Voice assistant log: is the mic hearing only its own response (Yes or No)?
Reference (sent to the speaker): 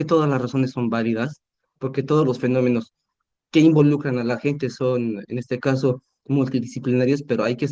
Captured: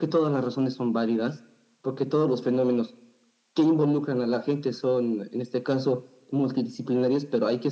Yes